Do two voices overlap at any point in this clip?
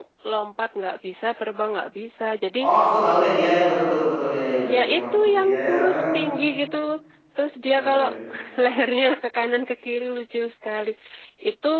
Yes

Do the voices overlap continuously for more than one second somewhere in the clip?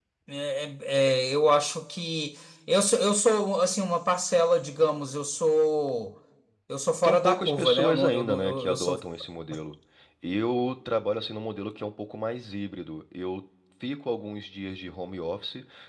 Yes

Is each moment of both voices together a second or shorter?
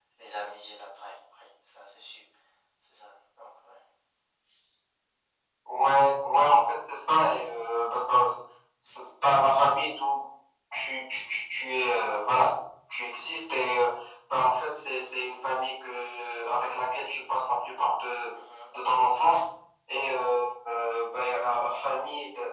Yes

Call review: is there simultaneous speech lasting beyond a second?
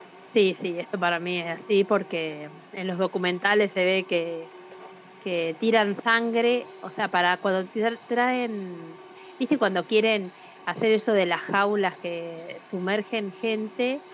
No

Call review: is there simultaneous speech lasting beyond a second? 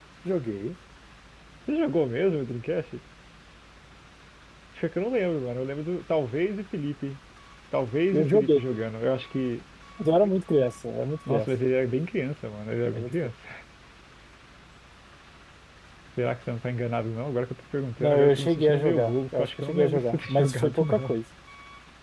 Yes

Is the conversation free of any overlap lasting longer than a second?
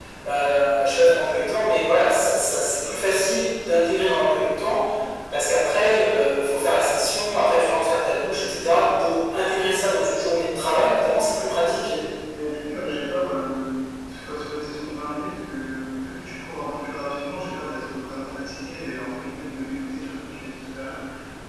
Yes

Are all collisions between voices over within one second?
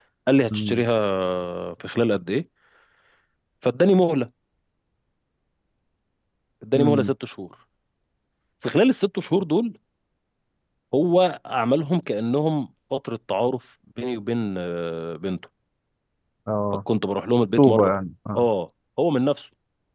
Yes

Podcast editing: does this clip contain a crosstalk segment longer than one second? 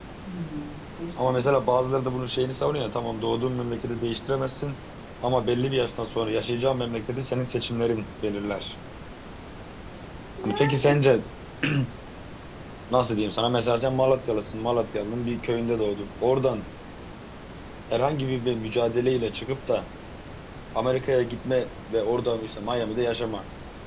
No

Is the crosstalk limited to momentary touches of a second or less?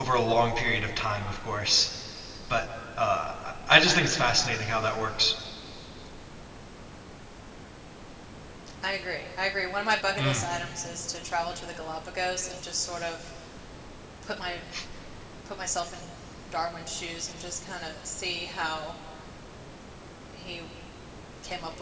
Yes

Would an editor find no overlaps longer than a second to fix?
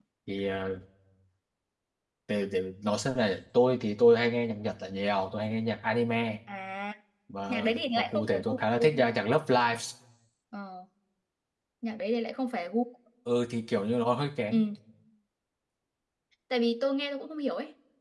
No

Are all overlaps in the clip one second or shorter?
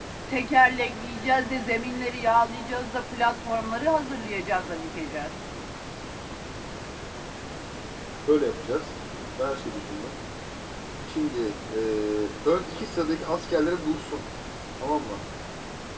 Yes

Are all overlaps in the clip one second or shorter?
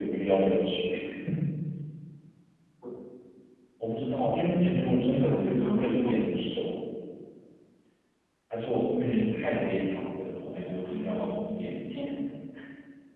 No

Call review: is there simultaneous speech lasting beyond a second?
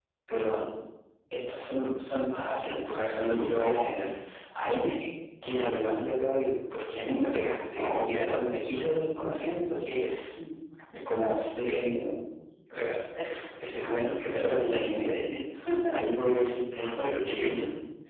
Yes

